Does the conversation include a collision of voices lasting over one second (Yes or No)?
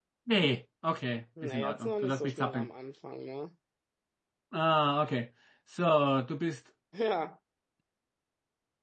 Yes